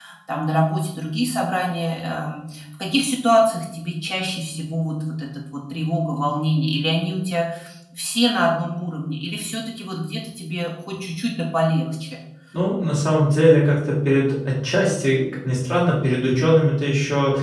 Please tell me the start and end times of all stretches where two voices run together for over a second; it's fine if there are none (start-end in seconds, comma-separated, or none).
none